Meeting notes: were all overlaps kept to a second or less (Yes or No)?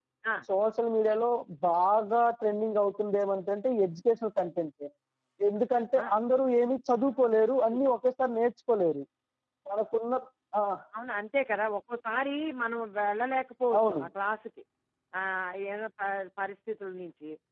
Yes